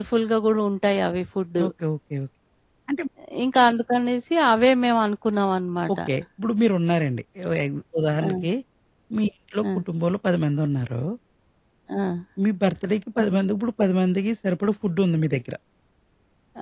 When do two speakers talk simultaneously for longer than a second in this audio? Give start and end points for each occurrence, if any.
none

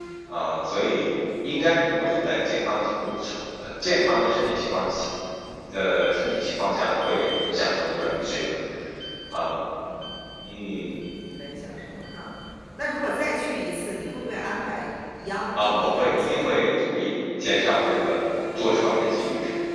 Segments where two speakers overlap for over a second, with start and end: 15.5-16.8

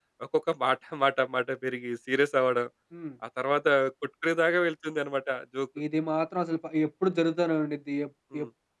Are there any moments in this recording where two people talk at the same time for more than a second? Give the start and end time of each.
none

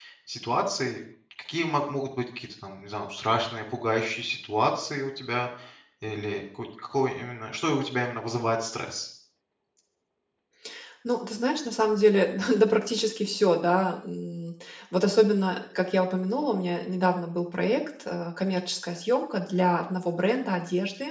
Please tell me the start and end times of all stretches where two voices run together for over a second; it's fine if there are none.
none

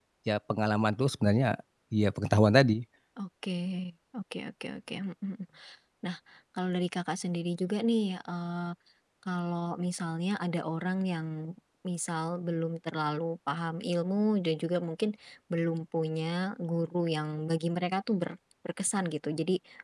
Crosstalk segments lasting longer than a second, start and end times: none

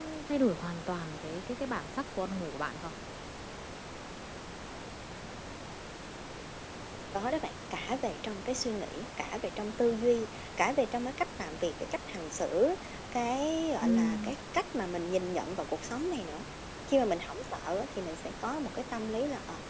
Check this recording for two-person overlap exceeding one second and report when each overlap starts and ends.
none

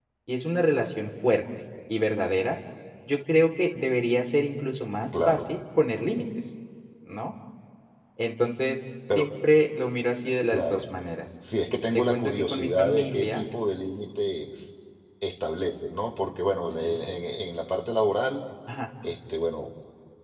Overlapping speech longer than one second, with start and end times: 11.9-13.5

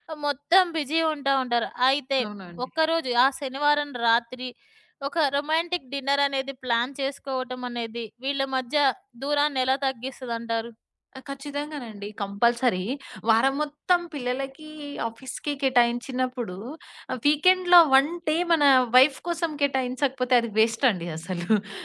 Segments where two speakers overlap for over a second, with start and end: none

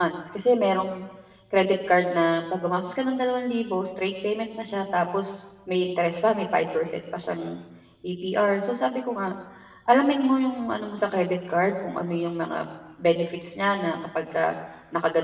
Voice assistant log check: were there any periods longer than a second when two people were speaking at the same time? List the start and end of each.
none

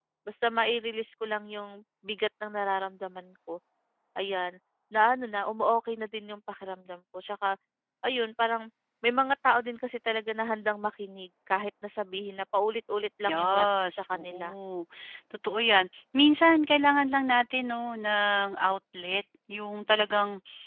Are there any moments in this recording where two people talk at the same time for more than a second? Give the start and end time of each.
13.3-14.5

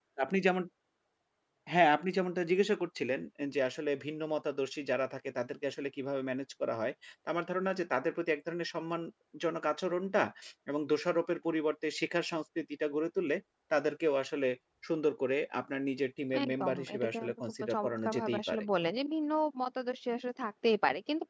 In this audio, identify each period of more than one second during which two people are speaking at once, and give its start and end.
16.4-18.6

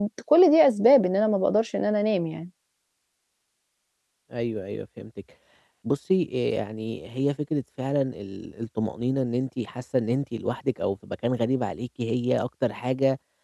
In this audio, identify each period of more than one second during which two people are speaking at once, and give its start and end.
none

